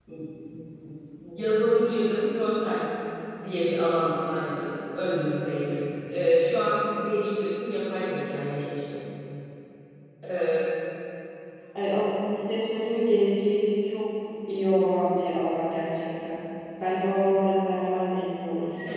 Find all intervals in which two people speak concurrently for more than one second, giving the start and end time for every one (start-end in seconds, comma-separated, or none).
none